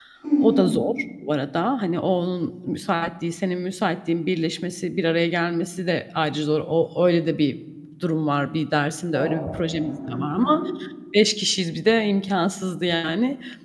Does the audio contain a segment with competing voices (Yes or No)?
Yes